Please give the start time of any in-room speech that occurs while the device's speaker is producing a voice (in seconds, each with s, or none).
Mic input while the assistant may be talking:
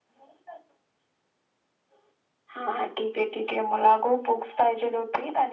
none